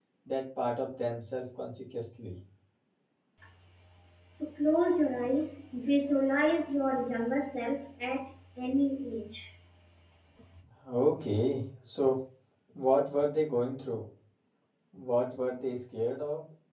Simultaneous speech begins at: none

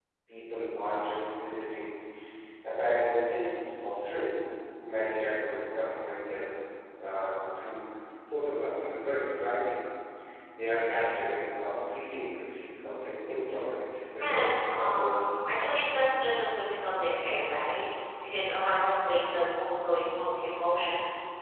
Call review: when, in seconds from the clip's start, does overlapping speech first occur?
14.2 s

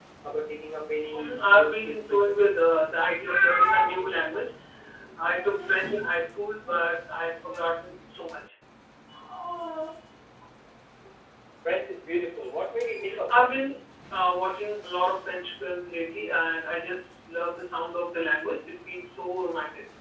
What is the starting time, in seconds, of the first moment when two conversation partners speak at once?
1.1 s

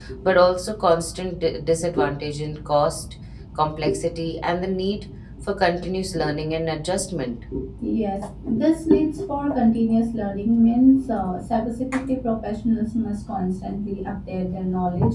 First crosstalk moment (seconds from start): none

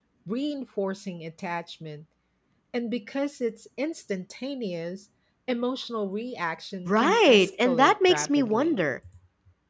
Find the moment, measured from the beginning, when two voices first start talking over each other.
6.9 s

